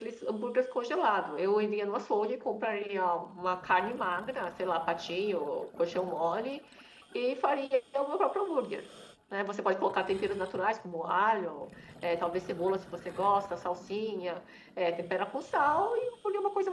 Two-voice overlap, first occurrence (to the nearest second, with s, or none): none